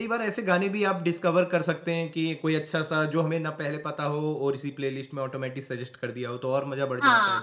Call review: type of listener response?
taking over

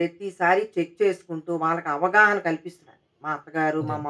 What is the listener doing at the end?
listening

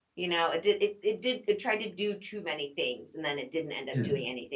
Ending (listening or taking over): listening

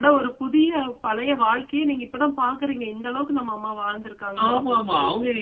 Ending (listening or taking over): taking over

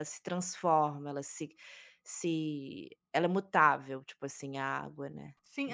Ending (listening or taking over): taking over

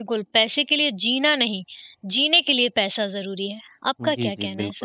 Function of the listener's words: taking over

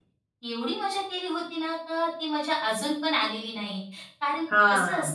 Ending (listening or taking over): listening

